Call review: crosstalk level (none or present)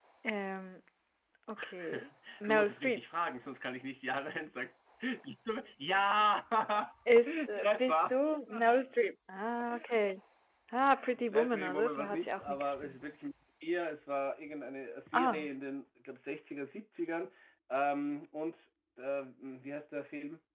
present